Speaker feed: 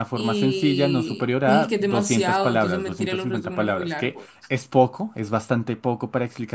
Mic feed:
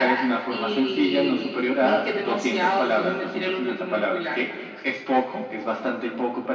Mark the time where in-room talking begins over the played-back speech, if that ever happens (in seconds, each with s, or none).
none